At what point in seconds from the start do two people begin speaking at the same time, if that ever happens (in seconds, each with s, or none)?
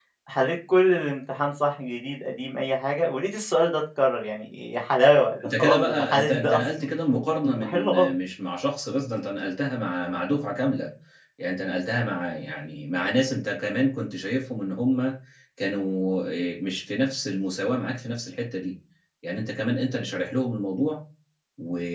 5.4 s